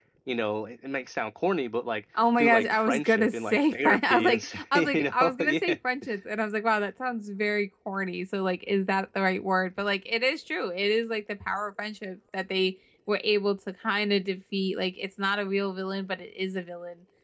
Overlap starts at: 2.1 s

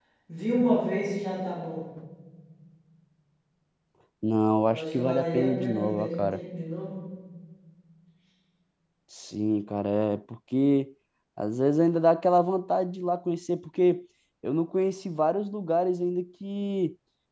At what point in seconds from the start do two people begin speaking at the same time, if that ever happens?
4.7 s

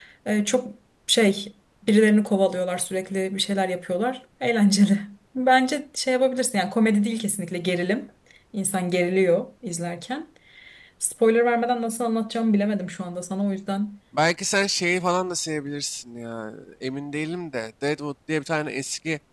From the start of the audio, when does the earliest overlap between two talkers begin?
none

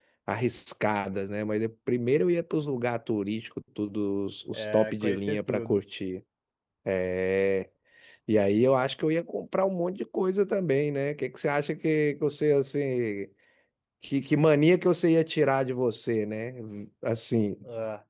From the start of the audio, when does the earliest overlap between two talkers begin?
4.5 s

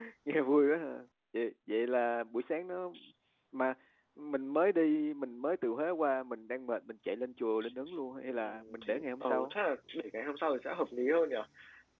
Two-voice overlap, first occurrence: 8.3 s

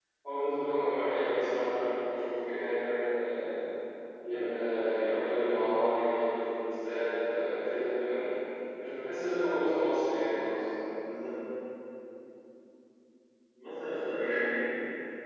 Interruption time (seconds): none

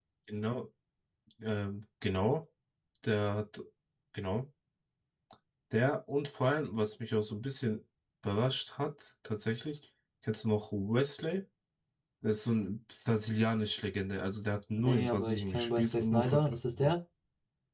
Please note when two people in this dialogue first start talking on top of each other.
14.7 s

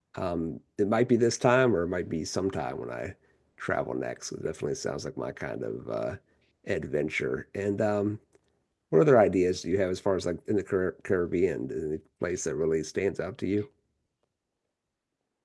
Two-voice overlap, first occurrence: none

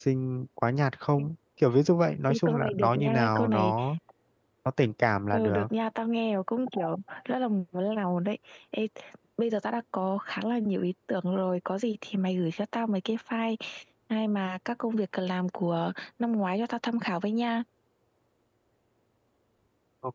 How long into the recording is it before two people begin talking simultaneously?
2.3 s

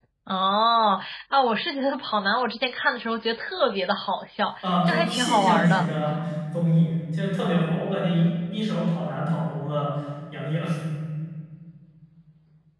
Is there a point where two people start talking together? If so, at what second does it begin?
4.6 s

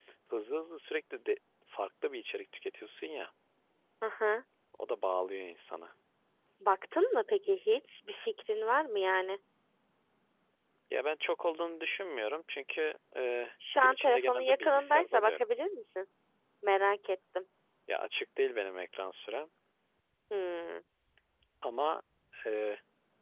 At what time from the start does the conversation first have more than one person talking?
13.6 s

